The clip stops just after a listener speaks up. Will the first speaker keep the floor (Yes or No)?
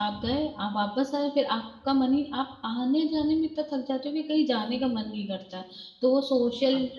Yes